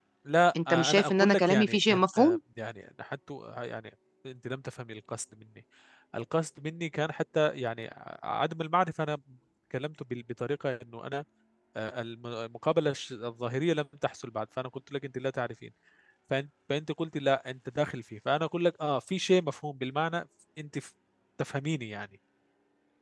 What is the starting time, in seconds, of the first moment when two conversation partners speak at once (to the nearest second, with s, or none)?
1 s